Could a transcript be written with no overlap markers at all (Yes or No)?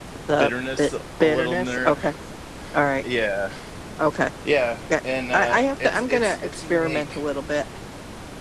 No